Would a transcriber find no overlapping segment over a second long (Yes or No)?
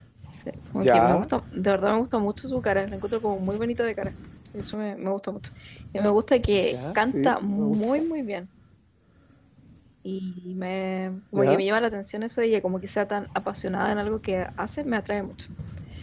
No